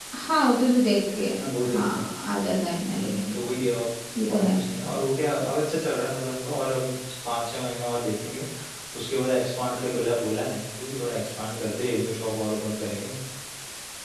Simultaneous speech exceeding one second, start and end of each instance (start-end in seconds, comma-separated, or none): none